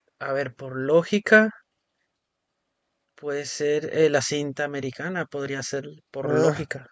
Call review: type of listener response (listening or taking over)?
taking over